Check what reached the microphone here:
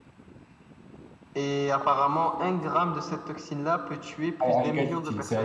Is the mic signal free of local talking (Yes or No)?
No